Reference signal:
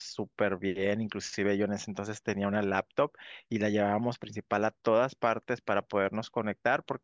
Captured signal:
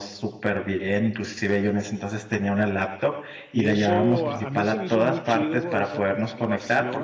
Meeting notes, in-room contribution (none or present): present